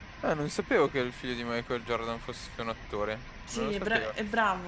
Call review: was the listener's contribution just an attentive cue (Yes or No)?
No